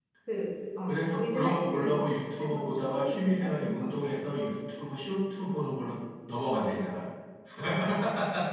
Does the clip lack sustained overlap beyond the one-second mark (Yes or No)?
No